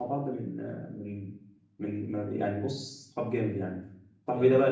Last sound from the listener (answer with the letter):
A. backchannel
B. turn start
A